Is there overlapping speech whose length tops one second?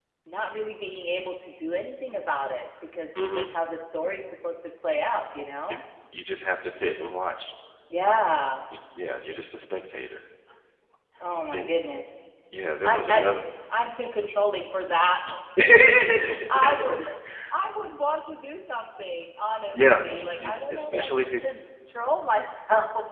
Yes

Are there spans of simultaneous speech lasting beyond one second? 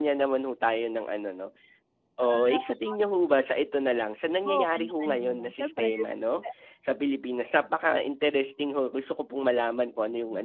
Yes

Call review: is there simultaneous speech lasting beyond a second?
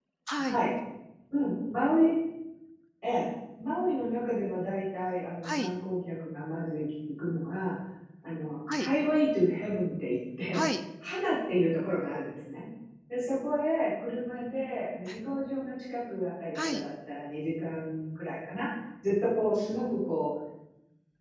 No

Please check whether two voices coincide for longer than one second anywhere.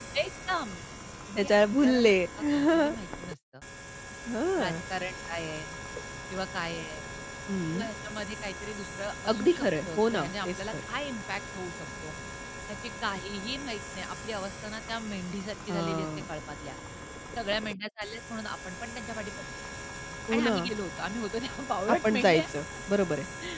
Yes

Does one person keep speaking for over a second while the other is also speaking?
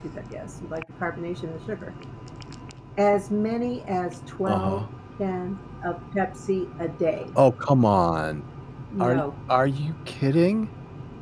No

